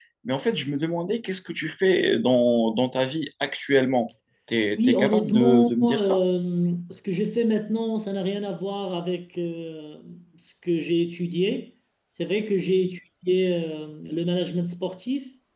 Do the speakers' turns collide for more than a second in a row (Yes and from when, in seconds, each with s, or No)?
Yes, from 4.8 s